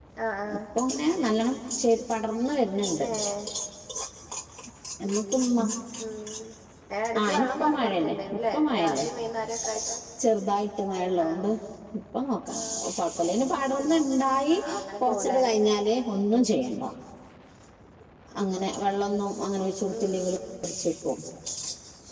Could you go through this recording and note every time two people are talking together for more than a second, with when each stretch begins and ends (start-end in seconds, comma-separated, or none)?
7.4-9.1